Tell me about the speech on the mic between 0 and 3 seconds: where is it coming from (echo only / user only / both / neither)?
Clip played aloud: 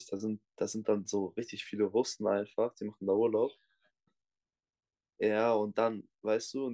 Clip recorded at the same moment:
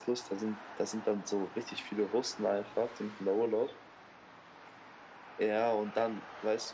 echo only